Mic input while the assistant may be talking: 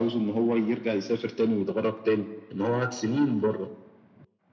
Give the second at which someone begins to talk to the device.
none

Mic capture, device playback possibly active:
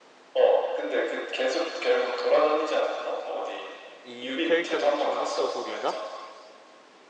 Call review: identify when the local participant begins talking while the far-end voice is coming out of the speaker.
4.0 s

